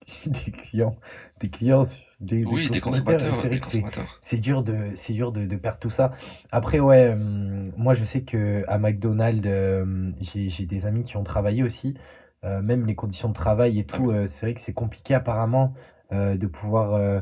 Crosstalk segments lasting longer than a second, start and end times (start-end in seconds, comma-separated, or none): 2.4-3.8